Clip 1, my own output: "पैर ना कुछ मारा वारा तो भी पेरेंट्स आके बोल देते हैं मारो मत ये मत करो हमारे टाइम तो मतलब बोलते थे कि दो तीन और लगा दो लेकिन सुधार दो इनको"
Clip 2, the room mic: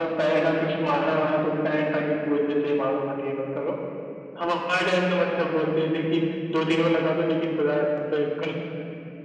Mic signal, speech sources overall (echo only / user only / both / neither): echo only